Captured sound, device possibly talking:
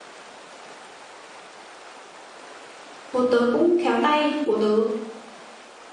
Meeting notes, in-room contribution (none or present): present